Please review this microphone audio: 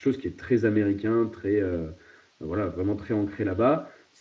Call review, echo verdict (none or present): none